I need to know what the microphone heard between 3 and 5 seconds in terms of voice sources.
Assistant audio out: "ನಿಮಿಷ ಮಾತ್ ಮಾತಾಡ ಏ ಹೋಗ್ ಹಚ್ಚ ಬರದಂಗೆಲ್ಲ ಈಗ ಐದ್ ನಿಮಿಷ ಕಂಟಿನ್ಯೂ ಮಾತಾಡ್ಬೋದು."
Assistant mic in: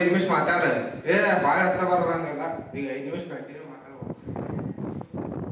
echo only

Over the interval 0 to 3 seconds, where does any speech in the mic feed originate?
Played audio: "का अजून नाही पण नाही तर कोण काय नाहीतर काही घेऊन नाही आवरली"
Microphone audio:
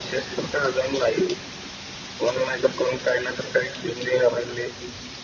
echo only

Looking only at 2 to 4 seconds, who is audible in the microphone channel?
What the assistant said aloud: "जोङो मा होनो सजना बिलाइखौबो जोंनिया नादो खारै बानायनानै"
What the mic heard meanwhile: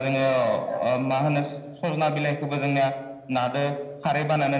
echo only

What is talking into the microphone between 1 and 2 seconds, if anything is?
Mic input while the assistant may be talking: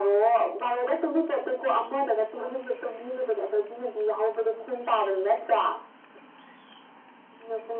echo only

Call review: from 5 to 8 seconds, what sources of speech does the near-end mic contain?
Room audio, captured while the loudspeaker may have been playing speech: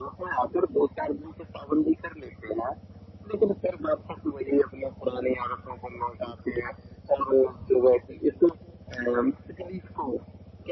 echo only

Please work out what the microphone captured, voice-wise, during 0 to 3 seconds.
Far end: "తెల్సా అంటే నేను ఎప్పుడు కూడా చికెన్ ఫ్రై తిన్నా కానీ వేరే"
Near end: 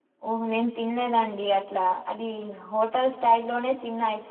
user only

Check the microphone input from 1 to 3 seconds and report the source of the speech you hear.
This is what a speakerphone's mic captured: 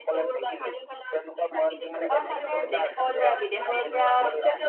both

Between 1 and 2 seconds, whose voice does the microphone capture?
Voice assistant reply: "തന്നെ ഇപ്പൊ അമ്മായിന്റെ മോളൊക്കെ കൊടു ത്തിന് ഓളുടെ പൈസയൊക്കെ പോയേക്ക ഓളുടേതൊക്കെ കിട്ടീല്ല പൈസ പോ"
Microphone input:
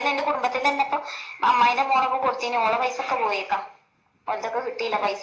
echo only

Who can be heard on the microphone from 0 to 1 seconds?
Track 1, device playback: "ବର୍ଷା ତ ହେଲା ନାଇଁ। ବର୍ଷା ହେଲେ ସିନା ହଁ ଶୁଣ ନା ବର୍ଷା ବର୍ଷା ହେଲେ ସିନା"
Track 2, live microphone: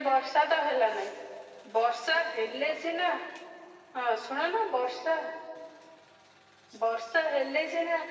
echo only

